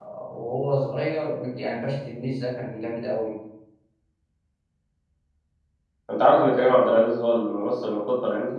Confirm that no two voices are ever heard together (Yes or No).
Yes